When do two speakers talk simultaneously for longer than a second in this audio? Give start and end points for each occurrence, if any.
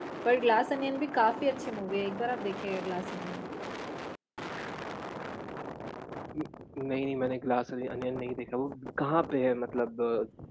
none

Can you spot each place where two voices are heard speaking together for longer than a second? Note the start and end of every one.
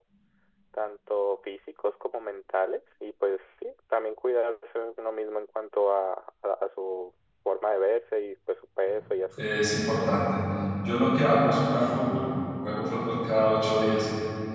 none

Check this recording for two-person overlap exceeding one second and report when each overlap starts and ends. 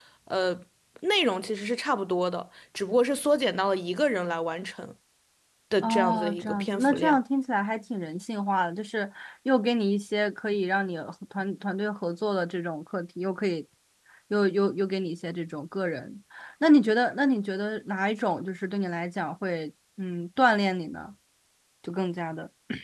5.8-7.2

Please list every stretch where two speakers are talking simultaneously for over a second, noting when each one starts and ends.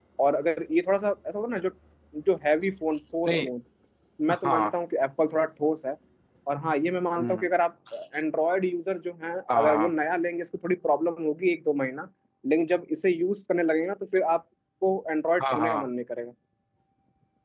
none

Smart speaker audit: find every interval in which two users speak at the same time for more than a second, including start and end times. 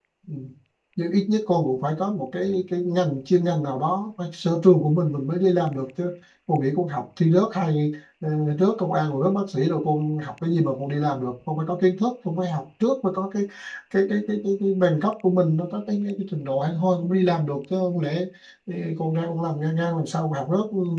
none

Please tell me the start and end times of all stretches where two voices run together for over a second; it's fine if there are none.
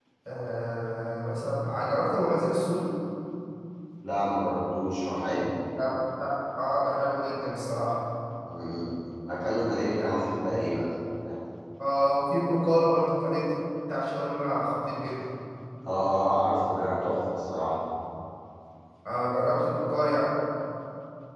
none

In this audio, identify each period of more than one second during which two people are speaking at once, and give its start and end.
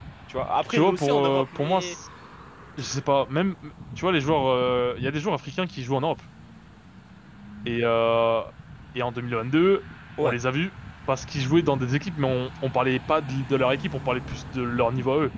0.7-2.0

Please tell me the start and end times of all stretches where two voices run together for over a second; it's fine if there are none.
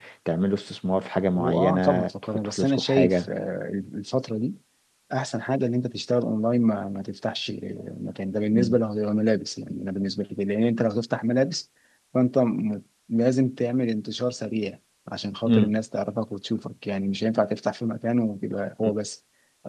1.4-3.3

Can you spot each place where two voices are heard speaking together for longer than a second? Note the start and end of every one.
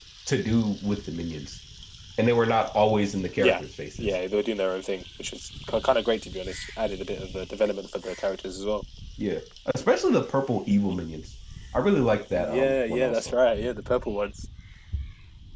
12.1-13.4

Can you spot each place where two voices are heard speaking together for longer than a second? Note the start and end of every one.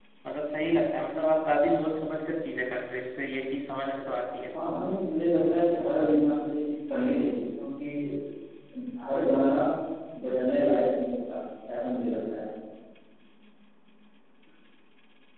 none

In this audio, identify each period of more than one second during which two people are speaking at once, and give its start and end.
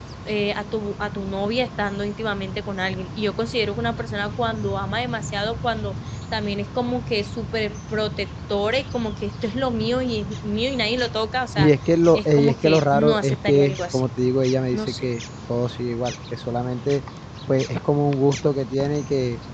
12.1-14.1

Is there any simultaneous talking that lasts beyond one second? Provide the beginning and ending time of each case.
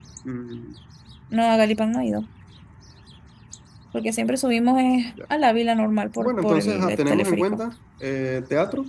6.2-7.6

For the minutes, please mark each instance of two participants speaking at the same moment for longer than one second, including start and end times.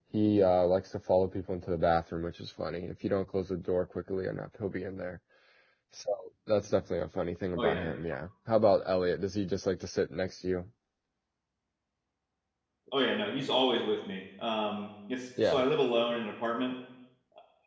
none

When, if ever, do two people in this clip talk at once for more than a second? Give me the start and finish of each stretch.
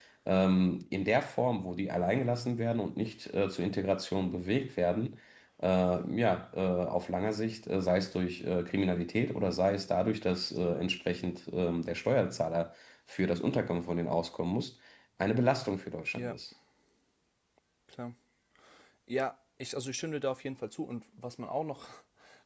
none

